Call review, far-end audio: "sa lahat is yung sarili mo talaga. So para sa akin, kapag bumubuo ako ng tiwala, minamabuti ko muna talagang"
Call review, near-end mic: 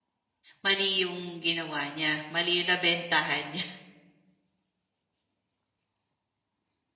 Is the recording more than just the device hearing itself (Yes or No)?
Yes